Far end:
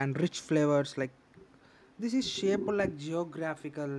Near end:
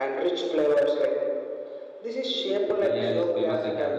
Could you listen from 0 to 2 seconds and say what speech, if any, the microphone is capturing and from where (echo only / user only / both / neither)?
echo only